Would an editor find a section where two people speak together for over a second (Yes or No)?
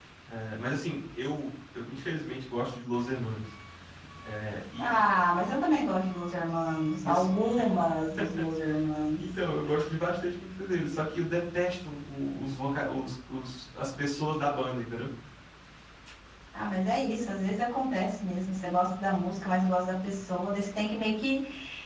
No